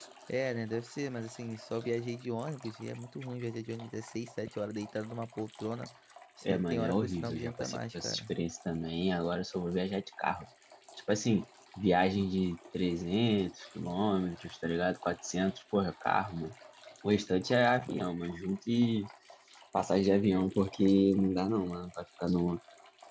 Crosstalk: present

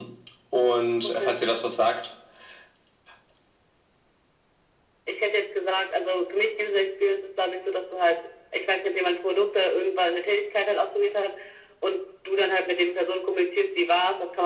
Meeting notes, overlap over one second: none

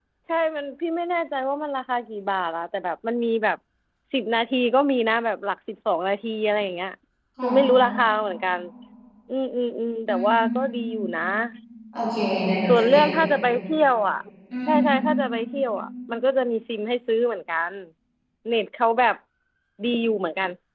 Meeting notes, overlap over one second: none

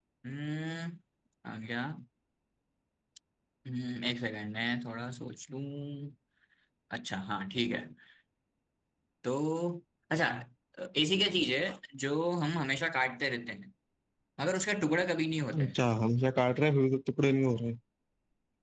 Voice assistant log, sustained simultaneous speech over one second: none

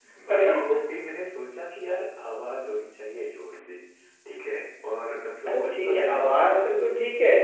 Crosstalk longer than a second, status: present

